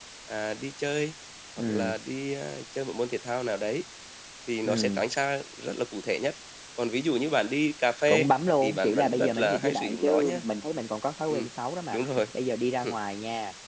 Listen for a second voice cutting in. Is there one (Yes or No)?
Yes